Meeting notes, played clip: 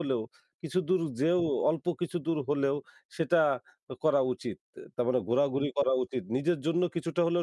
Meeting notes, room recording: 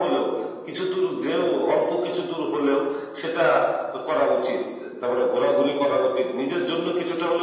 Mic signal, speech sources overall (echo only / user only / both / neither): echo only